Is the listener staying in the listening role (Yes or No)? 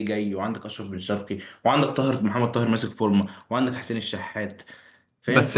No